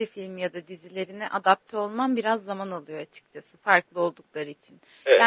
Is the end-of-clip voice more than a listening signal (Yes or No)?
No